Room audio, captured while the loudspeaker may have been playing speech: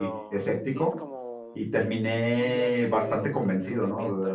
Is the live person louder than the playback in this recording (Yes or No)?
Yes